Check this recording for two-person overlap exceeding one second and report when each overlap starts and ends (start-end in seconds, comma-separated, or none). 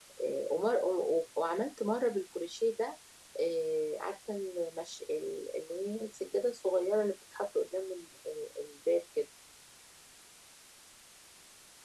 none